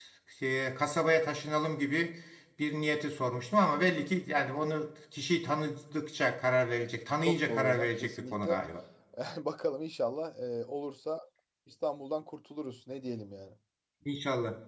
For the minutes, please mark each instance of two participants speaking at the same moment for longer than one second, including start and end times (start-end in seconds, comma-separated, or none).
7.2-8.6